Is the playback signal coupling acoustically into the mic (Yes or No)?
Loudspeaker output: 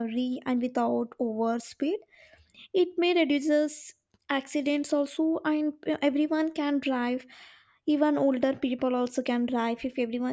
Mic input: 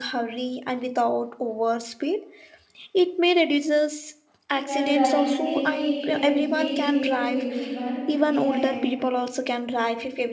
Yes